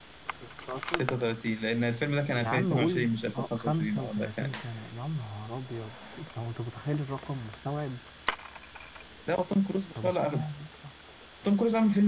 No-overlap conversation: No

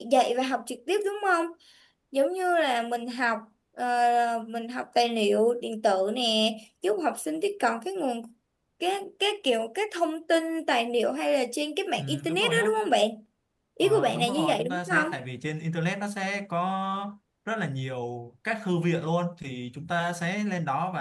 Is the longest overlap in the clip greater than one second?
Yes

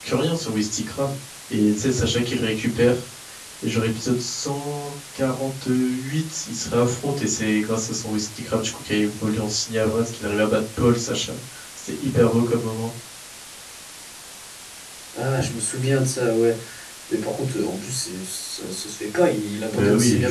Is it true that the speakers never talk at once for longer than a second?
Yes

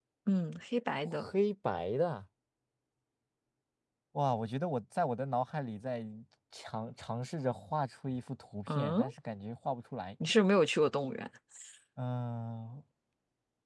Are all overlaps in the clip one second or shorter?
Yes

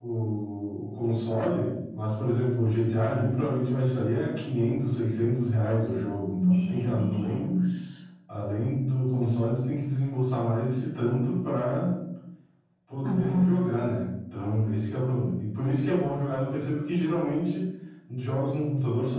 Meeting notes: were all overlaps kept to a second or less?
No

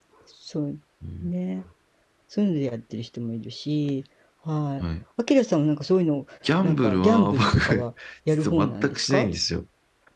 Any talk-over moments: Yes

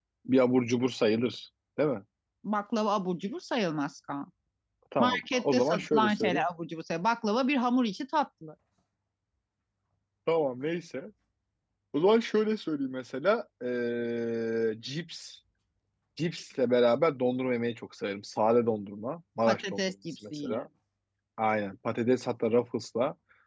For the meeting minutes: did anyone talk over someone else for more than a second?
Yes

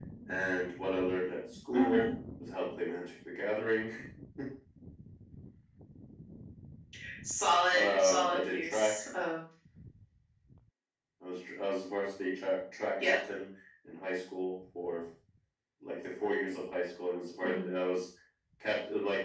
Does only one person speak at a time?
No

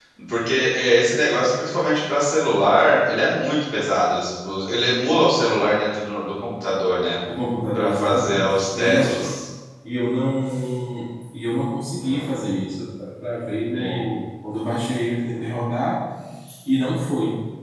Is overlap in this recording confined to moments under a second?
No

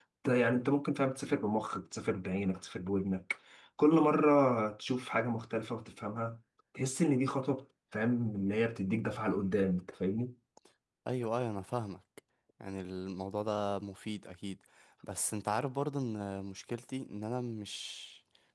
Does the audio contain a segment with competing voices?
No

